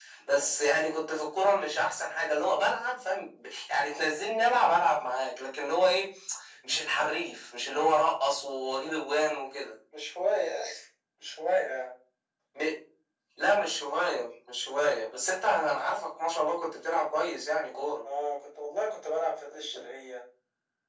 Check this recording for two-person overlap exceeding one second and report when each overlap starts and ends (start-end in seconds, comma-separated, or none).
none